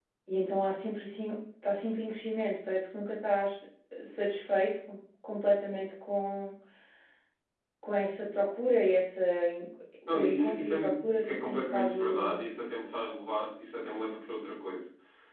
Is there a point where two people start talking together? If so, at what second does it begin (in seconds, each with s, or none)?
10.1 s